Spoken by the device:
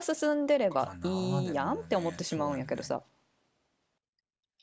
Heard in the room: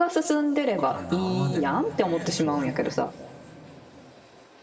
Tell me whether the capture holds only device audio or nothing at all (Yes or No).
Yes